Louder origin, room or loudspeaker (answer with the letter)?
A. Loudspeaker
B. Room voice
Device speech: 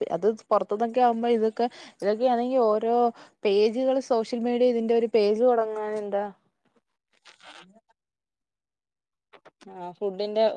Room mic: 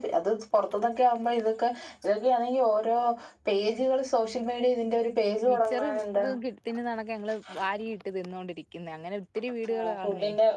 A